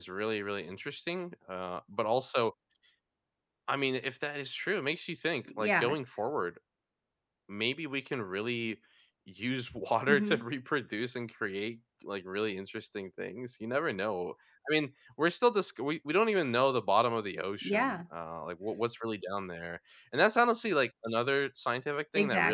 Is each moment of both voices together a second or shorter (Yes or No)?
Yes